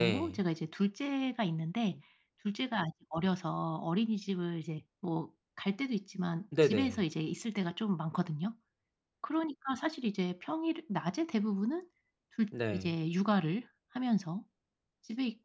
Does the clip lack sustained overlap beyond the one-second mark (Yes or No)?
Yes